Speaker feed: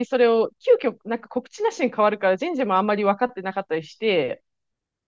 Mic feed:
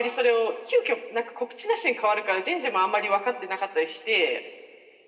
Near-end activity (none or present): none